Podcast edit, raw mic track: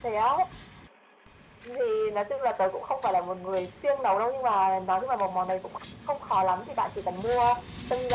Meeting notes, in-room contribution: none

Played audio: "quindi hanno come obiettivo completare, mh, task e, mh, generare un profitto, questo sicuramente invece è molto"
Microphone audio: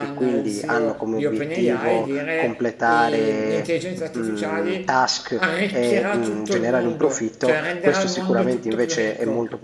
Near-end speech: present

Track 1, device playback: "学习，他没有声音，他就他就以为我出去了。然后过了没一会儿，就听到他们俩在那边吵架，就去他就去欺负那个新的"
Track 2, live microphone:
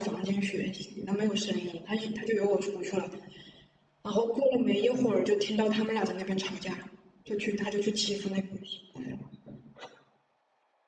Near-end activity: none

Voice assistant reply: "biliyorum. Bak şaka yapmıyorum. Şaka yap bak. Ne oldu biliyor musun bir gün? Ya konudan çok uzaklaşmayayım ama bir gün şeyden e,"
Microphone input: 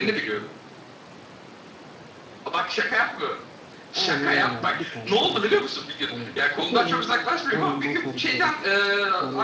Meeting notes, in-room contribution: present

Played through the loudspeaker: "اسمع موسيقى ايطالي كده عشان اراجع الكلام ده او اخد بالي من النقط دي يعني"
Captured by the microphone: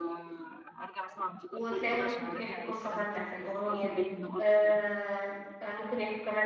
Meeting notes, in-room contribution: present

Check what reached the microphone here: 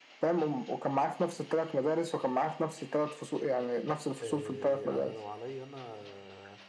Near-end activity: present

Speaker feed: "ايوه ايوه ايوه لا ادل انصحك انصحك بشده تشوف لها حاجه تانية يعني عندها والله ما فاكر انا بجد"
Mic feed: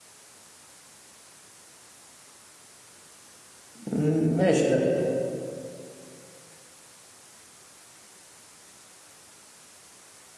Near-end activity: present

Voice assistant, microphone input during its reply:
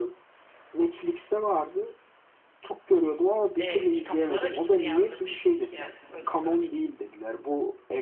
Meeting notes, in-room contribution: present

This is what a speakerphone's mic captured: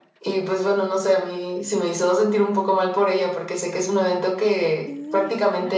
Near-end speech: present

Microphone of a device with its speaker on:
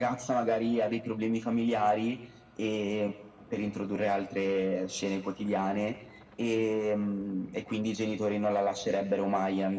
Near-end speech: none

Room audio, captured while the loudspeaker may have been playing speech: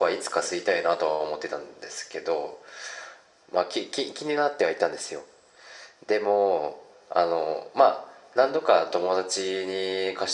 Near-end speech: none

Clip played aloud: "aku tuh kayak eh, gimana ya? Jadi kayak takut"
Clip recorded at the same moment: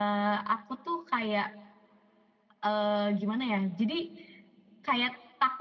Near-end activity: none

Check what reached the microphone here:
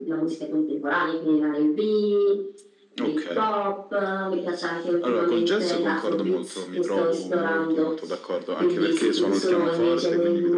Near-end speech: none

